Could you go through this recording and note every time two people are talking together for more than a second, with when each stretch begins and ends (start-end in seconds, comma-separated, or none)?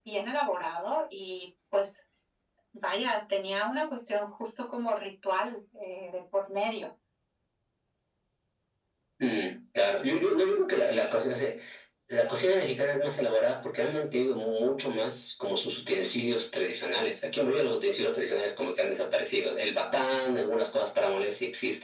none